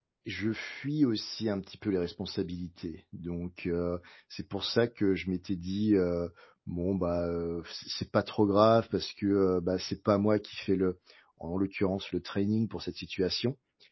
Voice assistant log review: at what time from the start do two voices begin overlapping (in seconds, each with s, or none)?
none